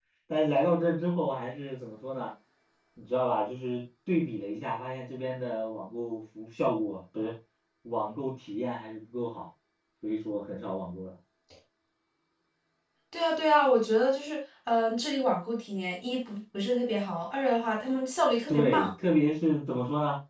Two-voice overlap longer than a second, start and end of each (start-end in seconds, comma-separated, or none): none